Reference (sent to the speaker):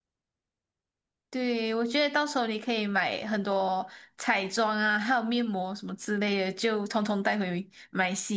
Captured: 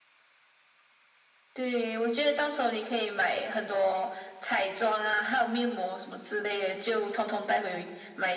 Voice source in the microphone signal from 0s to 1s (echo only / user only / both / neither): neither